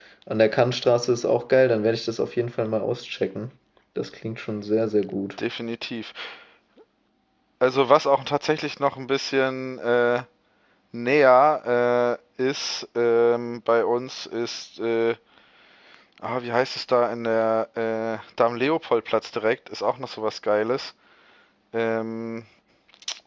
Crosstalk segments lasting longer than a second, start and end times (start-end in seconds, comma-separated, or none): none